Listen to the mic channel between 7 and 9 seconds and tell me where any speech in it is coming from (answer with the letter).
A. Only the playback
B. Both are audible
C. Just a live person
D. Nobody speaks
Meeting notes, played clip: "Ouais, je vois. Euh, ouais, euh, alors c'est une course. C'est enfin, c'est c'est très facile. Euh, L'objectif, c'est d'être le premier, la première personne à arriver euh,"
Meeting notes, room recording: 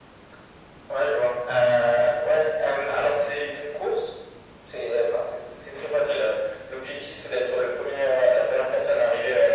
A